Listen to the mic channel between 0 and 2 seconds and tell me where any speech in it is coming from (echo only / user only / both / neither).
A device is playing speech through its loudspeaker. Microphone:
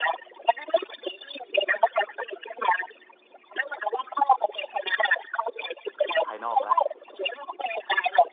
echo only